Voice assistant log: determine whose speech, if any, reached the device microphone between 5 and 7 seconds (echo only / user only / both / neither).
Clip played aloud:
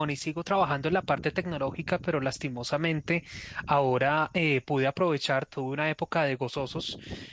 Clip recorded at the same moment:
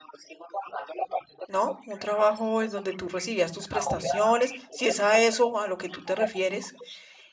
both